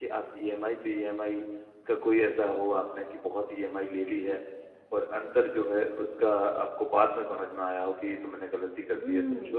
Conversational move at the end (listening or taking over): taking over